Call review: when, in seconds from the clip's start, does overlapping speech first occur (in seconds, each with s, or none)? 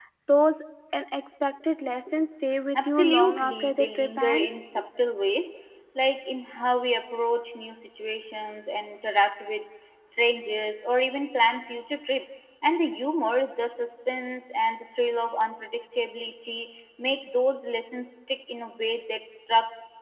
2.8 s